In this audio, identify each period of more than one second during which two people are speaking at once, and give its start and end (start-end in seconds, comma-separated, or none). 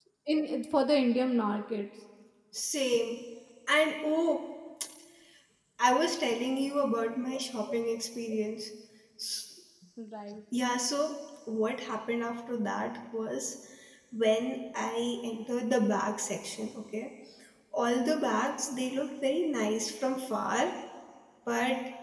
none